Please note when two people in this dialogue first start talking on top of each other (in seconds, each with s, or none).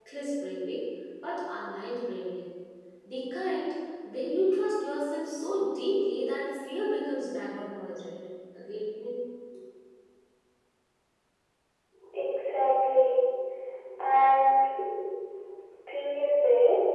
none